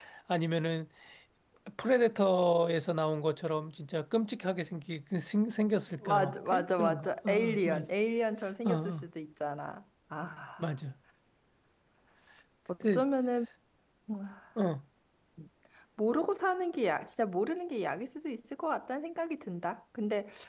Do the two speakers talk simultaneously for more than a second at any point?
Yes, from 6.1 s

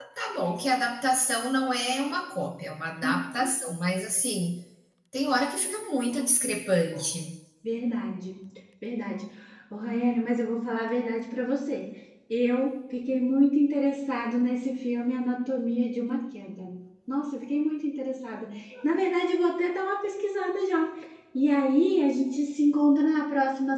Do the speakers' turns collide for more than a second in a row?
No

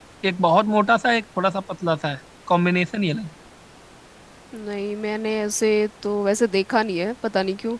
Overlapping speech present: No

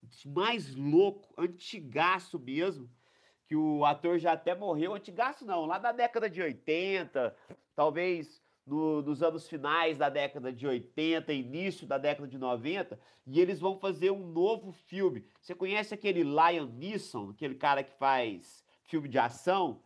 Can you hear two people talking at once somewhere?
No

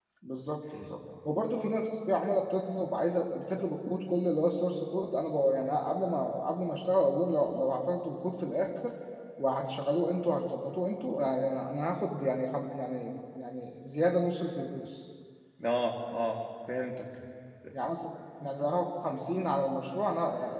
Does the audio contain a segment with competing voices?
No

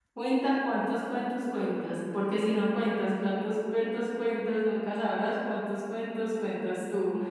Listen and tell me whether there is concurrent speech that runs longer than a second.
No

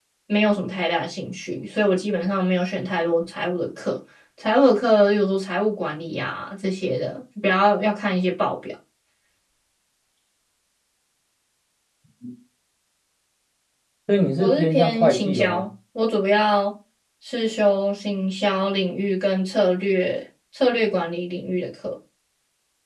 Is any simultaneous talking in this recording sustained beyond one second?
Yes, from 14.4 s

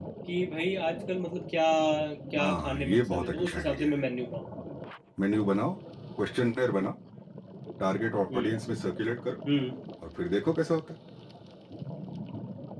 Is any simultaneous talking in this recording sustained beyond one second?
Yes, from 2.4 s

